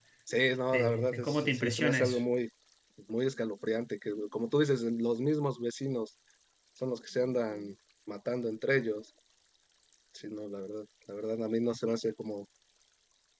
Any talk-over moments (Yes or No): Yes